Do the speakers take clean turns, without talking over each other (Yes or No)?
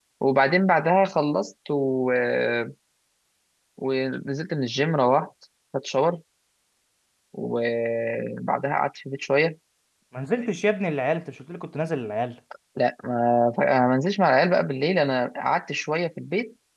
Yes